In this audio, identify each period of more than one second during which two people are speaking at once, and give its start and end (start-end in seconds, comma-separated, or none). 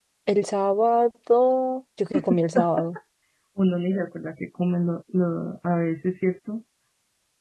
none